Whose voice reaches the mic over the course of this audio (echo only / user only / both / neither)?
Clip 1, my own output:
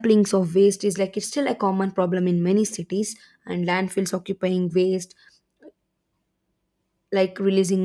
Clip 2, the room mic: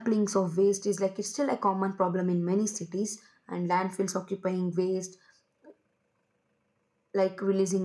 echo only